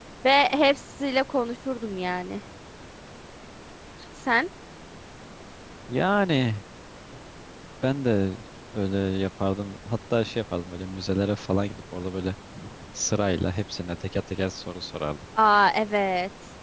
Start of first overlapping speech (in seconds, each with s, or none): none